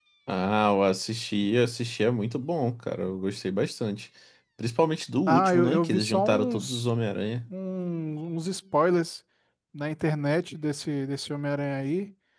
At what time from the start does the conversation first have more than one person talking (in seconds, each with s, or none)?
5.3 s